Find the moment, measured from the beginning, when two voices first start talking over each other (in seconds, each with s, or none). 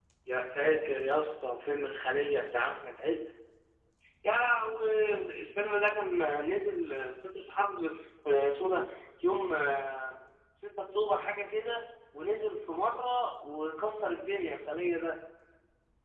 none